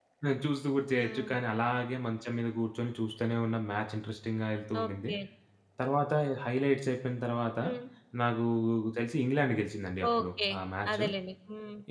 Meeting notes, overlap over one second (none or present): none